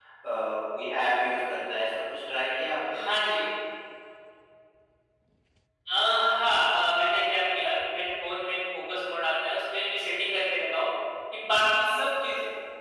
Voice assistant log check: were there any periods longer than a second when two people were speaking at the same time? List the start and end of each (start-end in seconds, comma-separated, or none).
none